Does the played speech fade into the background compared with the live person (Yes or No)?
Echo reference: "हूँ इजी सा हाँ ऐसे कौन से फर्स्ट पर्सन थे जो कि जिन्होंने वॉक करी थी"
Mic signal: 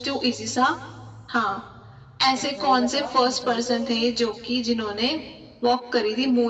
No